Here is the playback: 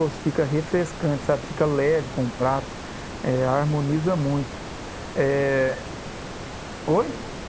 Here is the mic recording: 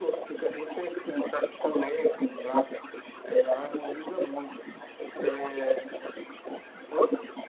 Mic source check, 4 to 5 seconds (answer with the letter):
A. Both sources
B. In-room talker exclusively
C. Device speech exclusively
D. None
C